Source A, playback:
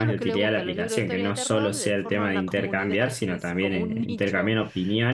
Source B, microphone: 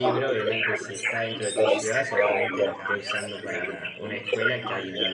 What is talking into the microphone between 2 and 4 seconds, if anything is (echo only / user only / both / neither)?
both